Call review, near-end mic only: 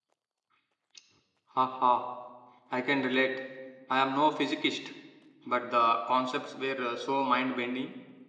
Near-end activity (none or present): present